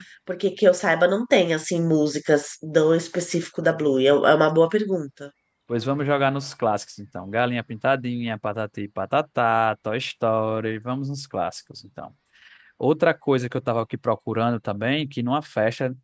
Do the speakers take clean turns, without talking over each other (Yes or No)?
Yes